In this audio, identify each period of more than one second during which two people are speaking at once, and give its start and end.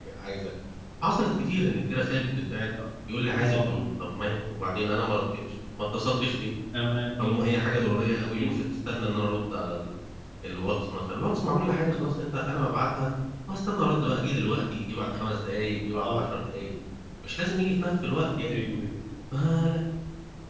none

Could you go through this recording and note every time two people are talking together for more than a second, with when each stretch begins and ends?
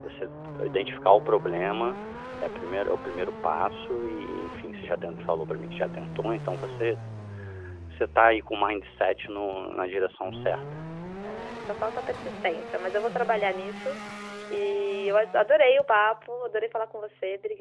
none

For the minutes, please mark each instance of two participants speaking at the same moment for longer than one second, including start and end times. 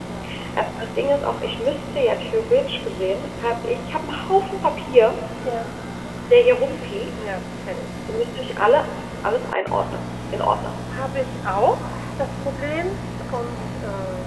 none

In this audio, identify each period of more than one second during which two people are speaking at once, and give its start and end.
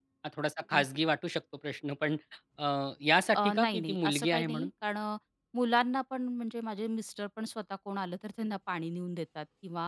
3.3-4.7

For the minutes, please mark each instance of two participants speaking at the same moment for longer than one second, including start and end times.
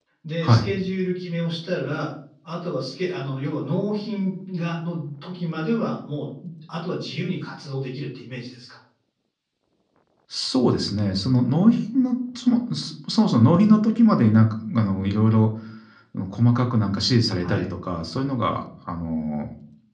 none

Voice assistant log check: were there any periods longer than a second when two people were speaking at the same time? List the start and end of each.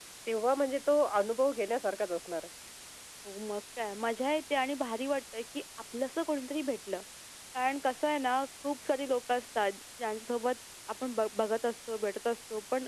none

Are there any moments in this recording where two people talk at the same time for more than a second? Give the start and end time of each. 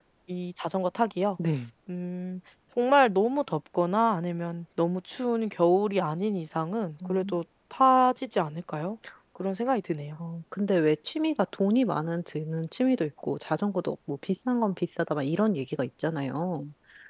none

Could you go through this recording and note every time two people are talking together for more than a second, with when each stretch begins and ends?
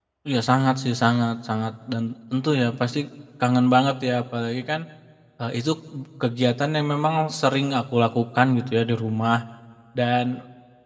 none

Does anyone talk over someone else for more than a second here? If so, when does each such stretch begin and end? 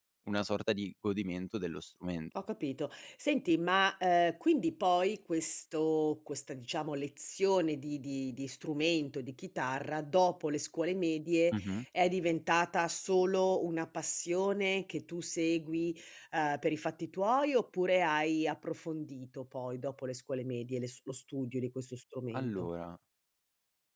none

